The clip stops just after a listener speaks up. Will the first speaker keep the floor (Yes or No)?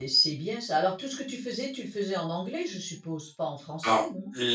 No